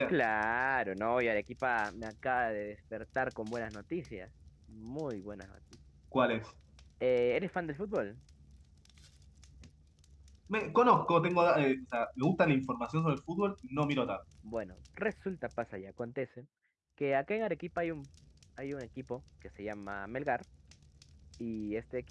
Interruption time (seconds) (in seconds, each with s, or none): none